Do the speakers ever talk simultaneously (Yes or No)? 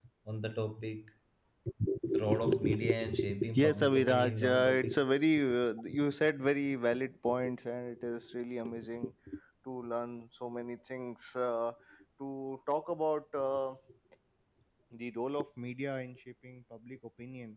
Yes